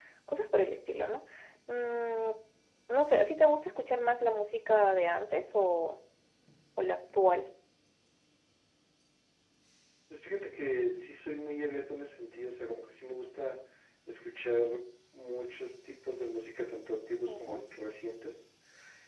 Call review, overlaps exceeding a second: none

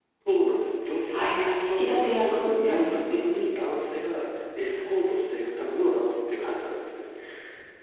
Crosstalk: present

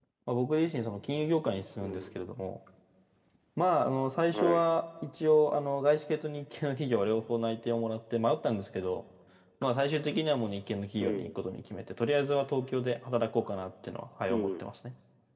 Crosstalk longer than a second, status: none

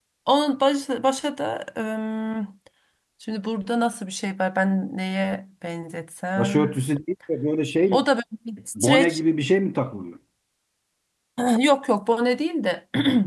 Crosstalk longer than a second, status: none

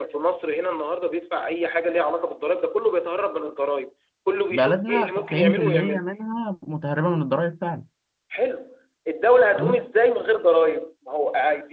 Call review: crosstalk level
present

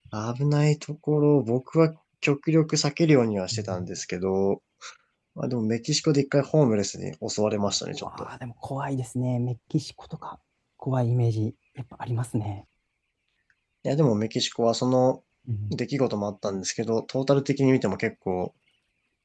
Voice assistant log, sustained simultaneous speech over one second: none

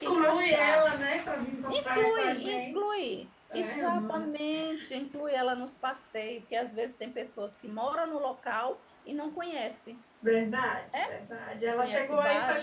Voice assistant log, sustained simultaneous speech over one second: present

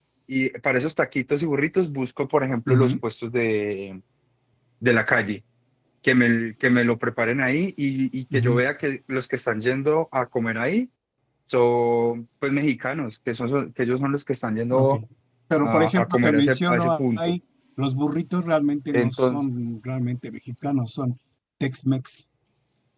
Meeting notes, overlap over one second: present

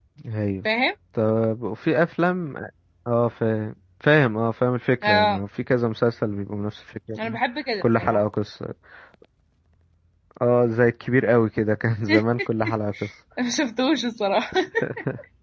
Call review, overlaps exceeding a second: none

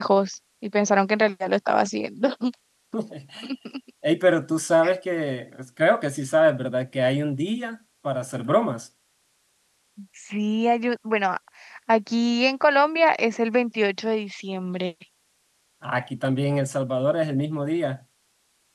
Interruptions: none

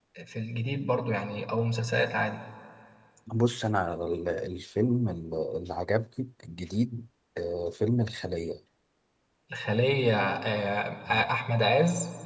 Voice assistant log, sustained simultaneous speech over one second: none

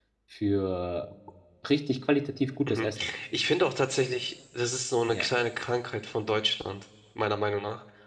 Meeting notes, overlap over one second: none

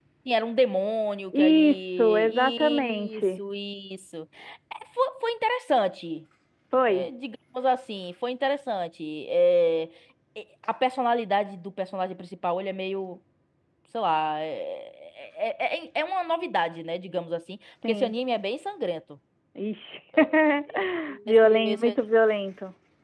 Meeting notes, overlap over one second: present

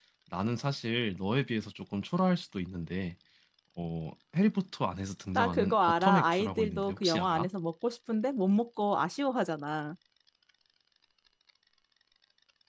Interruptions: present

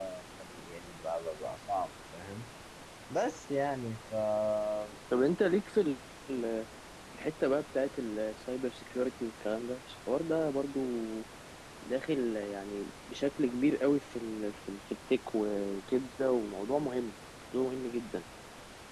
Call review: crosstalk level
none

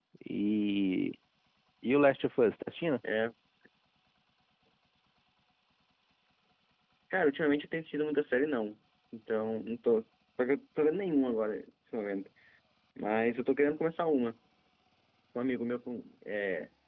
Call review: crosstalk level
none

